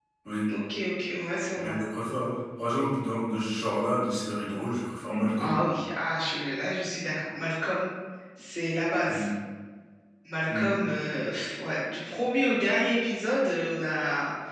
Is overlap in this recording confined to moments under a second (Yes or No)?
Yes